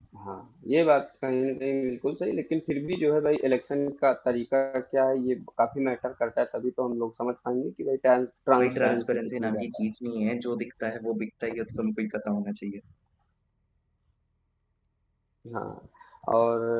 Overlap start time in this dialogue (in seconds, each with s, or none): 8.6 s